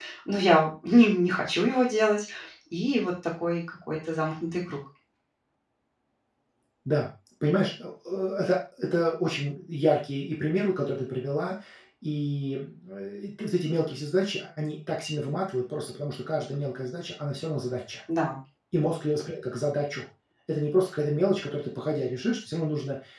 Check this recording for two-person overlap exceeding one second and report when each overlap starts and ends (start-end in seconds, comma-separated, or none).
none